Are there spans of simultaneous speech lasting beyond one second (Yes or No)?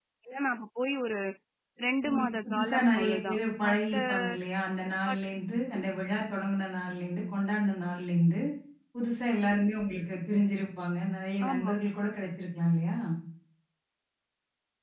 Yes